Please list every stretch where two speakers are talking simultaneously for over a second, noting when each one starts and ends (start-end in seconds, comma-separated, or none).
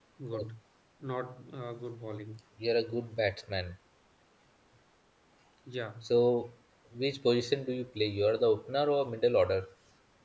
none